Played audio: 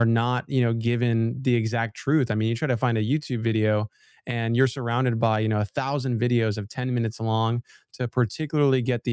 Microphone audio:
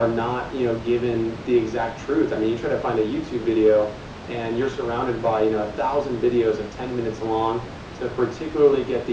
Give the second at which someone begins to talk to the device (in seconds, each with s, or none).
none